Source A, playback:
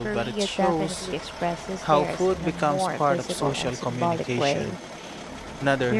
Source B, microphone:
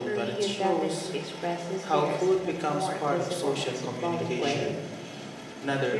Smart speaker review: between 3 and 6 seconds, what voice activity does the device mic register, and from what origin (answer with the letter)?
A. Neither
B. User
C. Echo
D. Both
C